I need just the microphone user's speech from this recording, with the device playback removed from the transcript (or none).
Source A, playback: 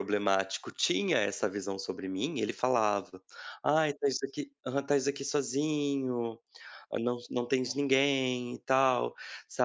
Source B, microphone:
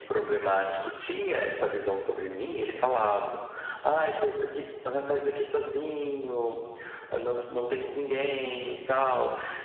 none